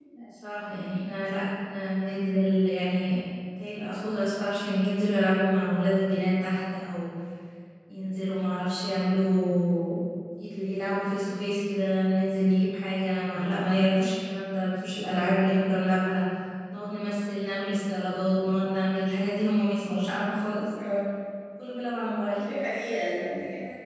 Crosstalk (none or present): none